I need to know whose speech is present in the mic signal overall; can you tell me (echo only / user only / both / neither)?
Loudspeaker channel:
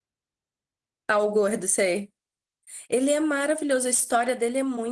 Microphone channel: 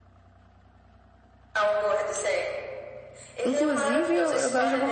both